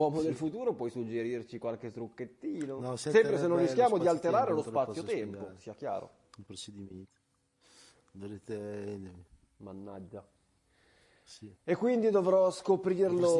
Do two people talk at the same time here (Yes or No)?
Yes